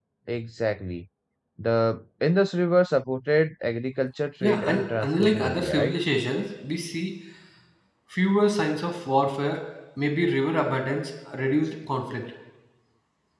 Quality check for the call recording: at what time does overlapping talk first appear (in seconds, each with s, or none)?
4.4 s